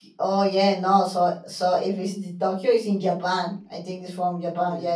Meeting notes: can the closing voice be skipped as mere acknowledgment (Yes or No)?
No